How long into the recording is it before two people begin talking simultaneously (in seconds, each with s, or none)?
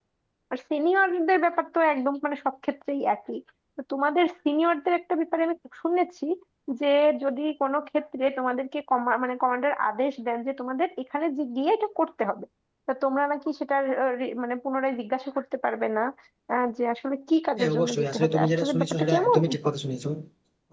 17.6 s